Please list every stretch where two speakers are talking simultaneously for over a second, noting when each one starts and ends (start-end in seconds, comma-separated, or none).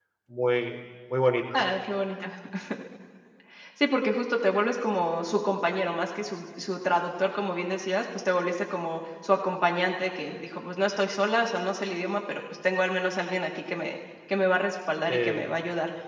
none